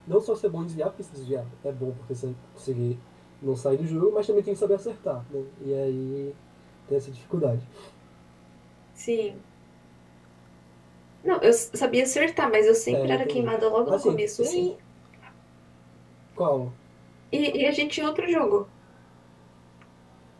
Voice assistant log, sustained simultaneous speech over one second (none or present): present